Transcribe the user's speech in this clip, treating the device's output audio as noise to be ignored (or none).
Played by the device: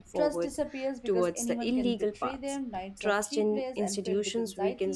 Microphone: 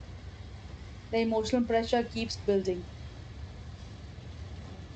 The emotional pressure keeps building.